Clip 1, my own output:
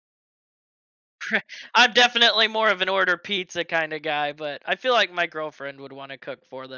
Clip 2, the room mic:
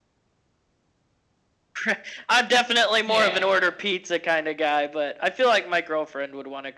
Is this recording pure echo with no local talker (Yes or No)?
No